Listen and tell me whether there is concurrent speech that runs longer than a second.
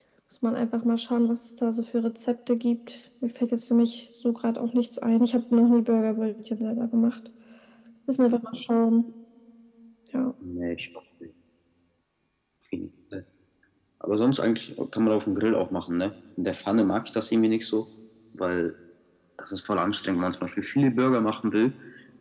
No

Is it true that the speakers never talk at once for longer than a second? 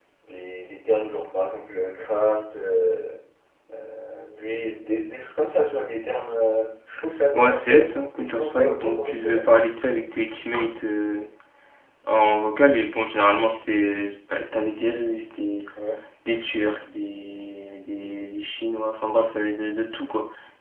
No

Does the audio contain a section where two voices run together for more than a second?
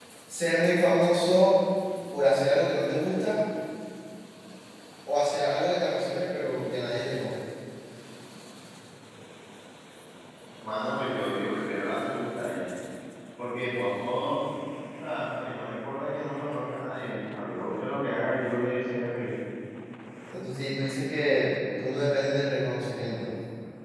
No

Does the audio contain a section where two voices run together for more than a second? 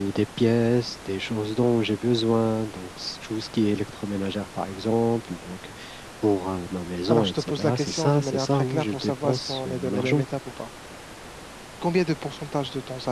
Yes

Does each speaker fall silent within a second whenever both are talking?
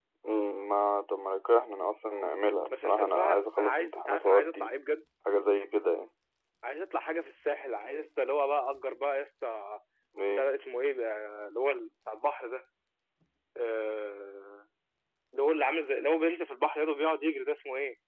No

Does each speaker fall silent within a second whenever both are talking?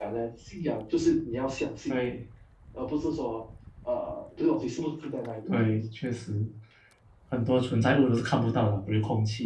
Yes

